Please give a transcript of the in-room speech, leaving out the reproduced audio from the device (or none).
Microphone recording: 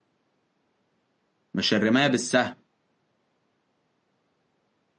مش الرماية بالسهم